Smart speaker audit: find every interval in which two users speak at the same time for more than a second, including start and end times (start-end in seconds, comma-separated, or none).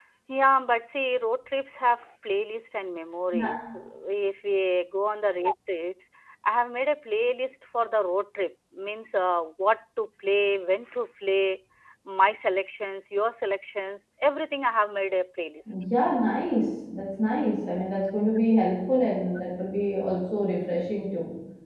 none